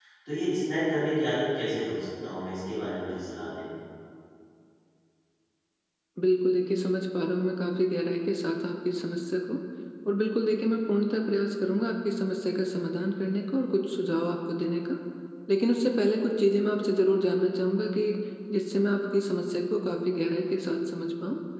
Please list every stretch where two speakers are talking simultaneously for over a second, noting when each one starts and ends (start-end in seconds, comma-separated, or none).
none